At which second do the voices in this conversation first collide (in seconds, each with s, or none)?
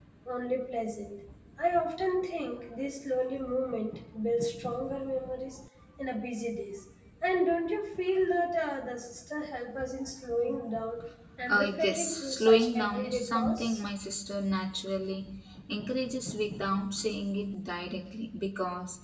11.5 s